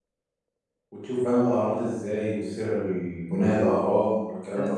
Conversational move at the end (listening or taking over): taking over